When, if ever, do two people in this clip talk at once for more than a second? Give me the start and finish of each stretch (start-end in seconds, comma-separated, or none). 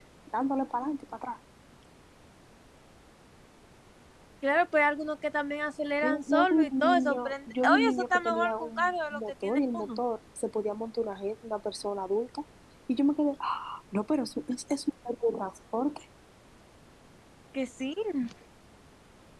6.0-10.0